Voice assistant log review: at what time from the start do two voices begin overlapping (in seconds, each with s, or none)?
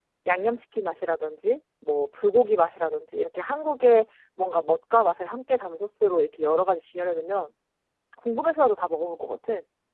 none